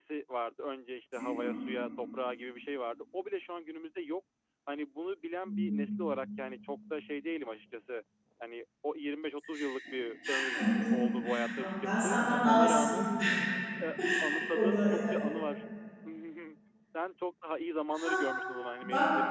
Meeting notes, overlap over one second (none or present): present